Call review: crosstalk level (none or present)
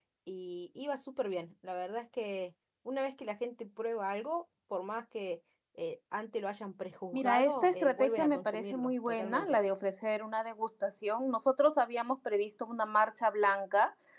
present